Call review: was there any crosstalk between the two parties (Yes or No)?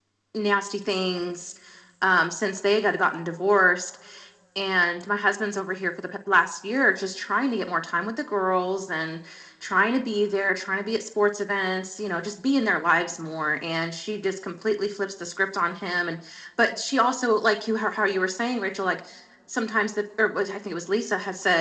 No